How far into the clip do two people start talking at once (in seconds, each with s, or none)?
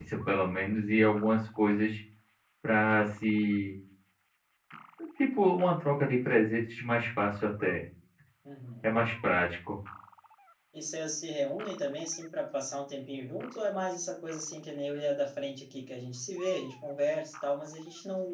none